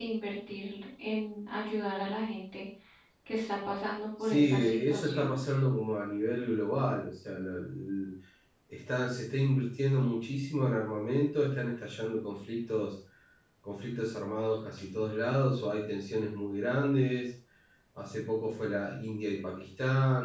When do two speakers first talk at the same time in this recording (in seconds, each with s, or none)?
4.2 s